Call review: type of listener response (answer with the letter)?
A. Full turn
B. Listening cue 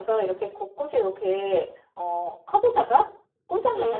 B